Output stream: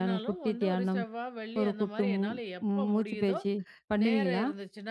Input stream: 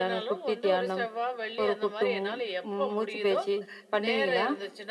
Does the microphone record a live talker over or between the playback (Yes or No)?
No